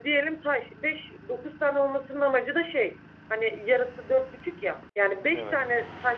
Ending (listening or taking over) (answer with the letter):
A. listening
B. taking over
A